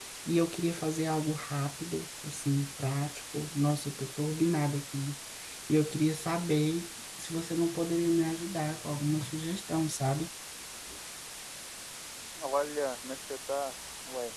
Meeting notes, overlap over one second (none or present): none